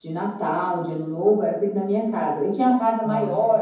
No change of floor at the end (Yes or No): Yes